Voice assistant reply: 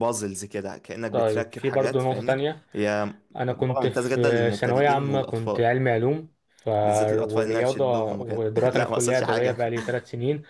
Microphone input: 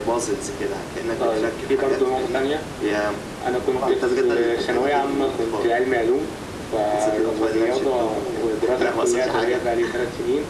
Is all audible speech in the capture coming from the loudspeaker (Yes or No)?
Yes